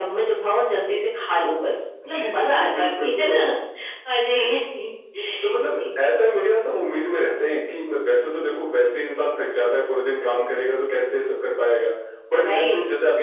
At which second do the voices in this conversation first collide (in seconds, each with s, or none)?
2.1 s